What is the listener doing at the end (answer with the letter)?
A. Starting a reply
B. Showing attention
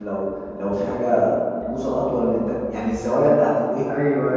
A